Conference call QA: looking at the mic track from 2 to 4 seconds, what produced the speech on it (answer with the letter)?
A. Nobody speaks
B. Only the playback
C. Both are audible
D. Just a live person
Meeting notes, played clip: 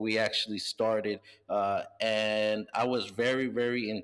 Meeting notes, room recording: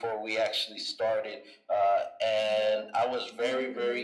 C